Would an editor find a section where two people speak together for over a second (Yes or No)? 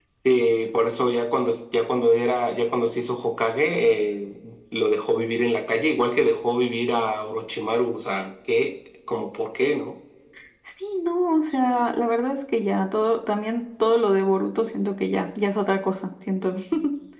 No